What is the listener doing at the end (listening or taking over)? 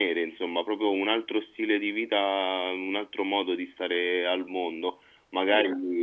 listening